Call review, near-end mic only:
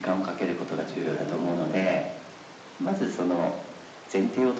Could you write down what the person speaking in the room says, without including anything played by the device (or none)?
うん。